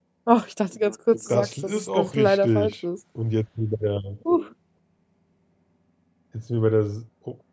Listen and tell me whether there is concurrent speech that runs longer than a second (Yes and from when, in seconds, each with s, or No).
Yes, from 1.3 s